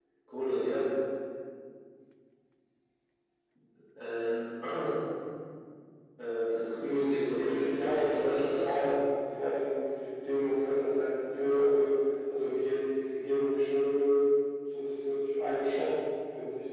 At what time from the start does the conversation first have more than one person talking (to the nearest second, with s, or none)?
7 s